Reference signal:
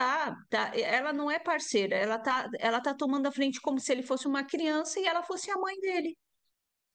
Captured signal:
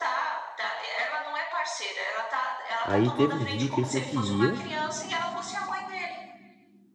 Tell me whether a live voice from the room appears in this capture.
Yes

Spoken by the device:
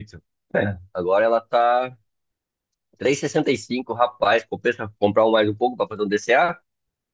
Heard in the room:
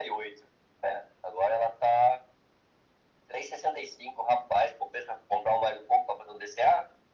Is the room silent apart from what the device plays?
Yes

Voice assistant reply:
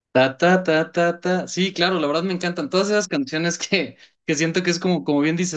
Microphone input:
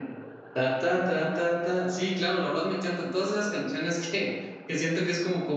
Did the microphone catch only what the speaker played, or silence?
Yes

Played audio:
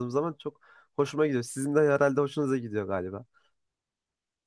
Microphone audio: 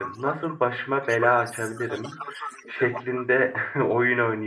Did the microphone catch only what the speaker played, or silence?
No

